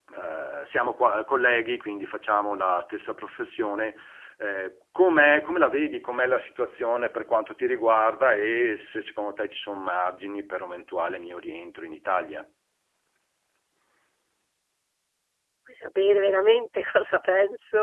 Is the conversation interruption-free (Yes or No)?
Yes